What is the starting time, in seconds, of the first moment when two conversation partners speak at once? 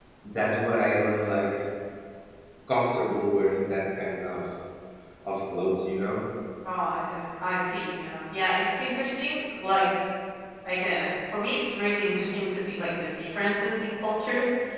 none

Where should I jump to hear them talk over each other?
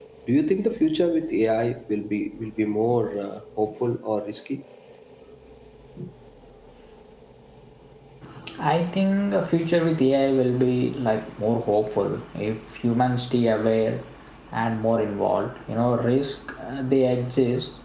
none

